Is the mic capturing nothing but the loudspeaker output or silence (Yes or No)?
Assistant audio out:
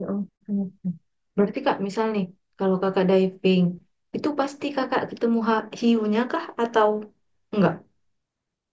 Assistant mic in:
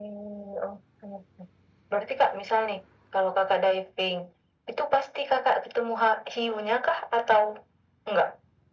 Yes